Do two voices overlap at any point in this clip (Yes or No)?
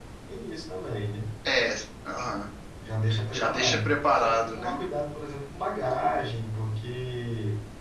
Yes